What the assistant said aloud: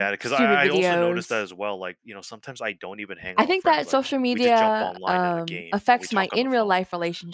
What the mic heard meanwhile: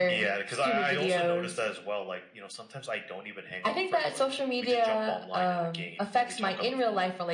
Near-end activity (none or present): none